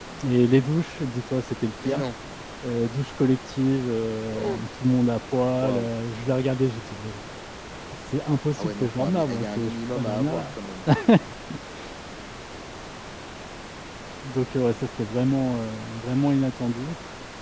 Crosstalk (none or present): present